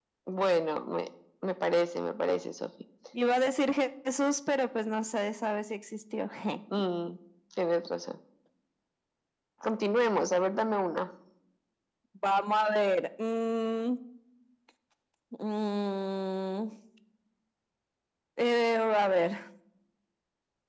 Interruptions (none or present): none